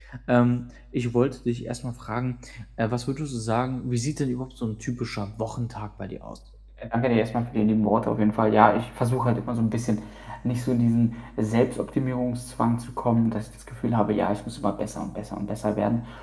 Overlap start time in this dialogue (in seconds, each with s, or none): none